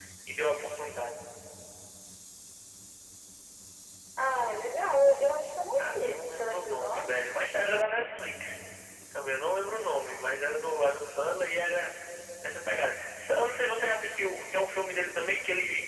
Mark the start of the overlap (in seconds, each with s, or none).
5.8 s